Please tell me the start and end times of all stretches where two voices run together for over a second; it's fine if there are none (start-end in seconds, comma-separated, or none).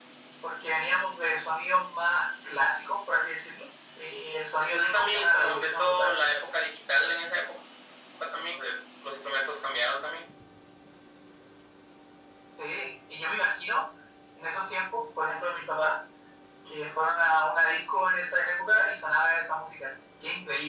4.6-6.1